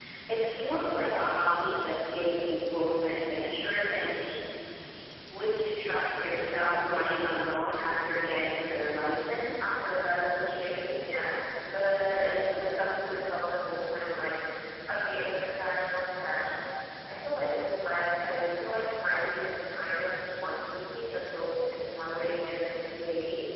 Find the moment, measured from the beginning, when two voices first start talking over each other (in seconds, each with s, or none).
none